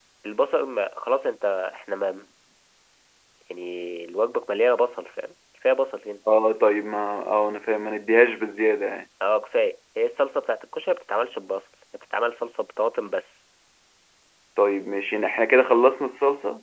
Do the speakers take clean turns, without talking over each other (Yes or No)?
Yes